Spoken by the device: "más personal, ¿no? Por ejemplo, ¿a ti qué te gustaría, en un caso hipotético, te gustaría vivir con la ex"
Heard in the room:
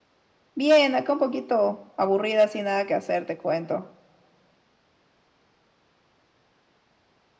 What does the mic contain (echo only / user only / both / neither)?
user only